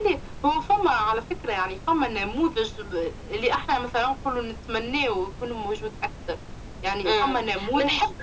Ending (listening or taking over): taking over